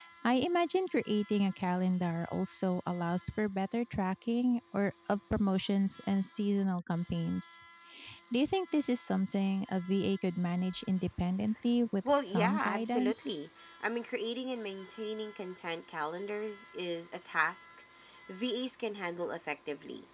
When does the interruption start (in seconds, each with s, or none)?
12.1 s